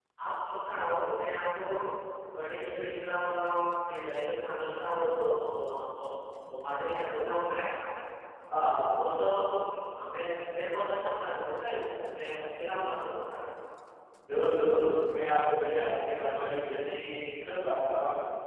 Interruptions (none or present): none